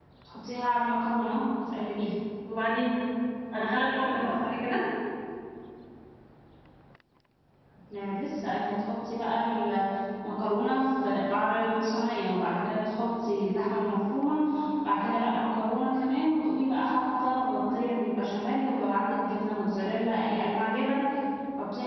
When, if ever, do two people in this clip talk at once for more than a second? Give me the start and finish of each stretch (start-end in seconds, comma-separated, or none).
none